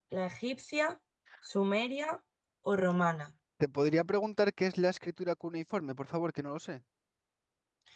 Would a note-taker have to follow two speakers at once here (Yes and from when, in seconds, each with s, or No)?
No